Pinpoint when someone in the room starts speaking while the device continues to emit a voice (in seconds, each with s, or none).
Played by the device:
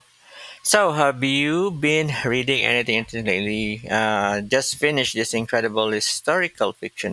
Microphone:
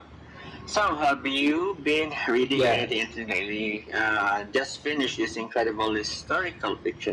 2.5 s